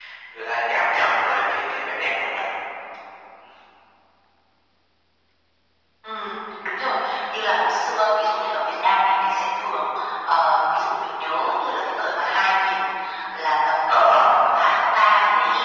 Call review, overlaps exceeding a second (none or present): none